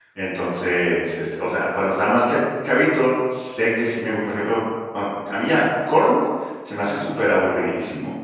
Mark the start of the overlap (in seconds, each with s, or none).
none